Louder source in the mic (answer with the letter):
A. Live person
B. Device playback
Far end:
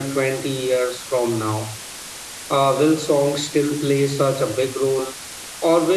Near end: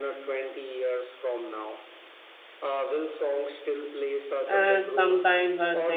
A